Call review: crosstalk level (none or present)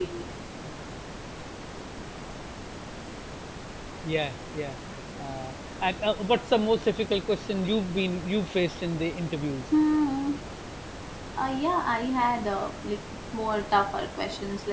none